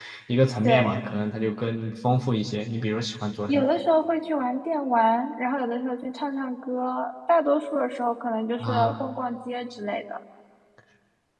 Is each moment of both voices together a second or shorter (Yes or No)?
Yes